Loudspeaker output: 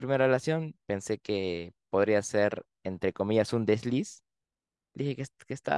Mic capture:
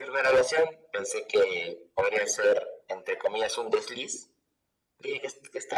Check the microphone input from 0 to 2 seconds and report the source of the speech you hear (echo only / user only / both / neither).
echo only